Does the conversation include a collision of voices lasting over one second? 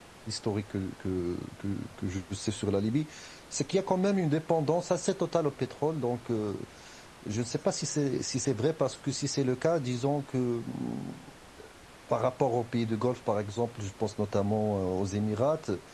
No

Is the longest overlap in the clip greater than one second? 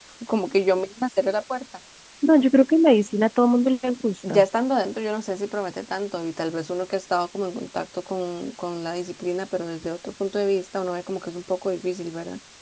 No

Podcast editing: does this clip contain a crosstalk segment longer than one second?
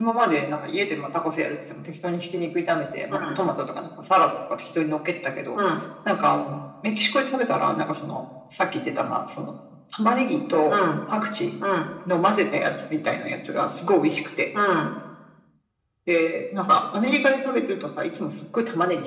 No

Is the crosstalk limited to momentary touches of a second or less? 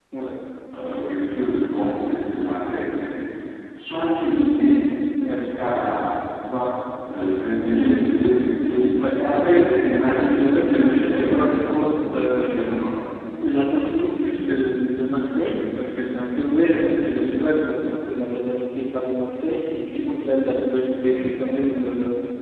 No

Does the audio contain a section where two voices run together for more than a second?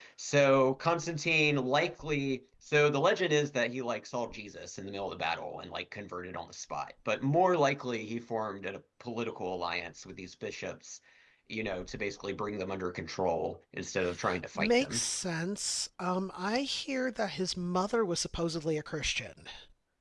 No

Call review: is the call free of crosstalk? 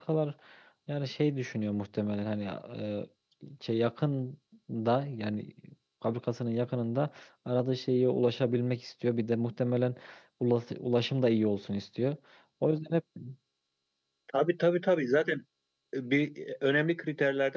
Yes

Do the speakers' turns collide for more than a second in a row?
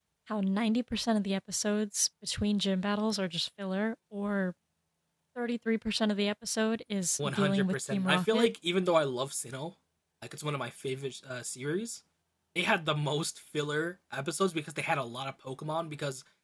Yes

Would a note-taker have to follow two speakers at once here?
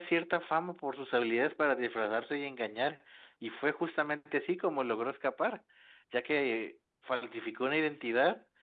No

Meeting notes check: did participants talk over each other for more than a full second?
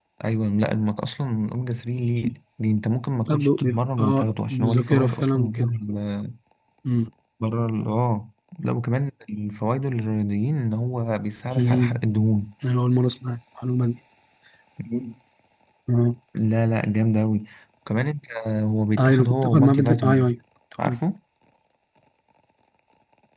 Yes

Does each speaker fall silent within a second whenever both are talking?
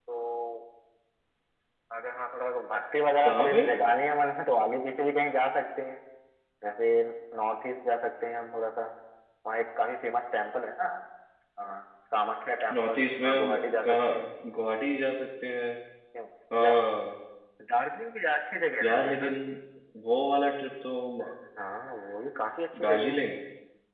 No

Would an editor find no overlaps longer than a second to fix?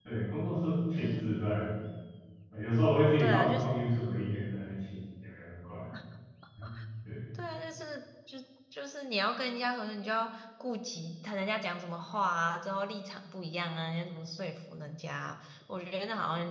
Yes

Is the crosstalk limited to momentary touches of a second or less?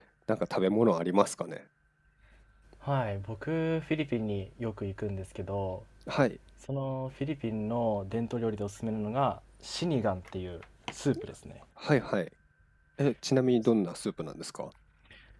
Yes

